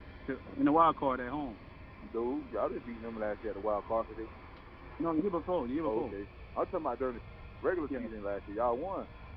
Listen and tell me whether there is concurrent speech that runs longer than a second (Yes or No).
No